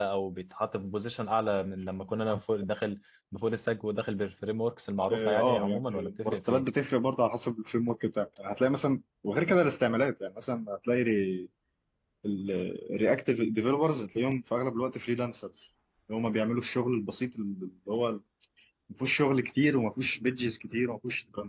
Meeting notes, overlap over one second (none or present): present